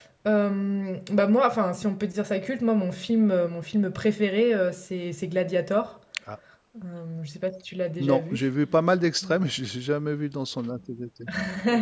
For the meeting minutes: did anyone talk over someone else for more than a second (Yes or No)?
No